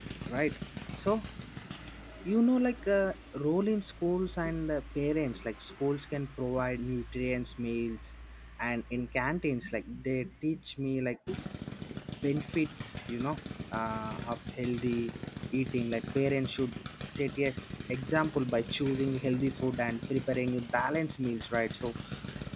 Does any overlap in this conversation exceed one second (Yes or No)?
No